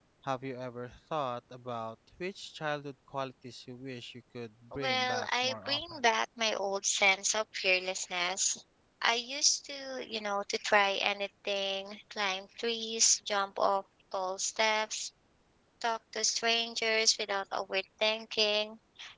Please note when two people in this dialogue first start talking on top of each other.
5 s

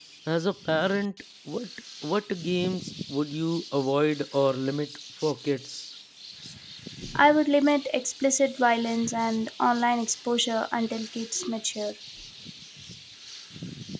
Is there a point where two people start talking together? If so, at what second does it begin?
none

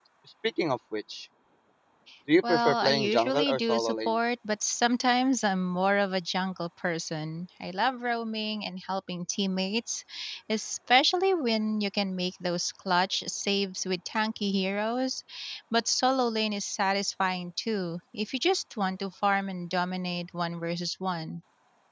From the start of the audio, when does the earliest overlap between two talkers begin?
2 s

